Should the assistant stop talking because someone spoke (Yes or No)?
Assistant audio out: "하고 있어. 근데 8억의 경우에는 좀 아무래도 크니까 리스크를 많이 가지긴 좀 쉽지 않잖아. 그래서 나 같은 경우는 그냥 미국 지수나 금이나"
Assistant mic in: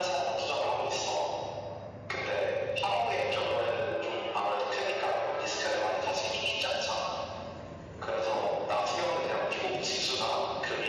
No